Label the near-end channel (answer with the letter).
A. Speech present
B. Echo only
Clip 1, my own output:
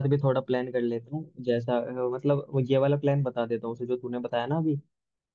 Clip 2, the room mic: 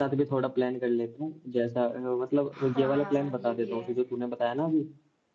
A